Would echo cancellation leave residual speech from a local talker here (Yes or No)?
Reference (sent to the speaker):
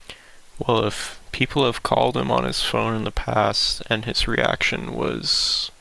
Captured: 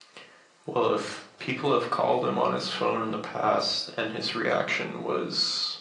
No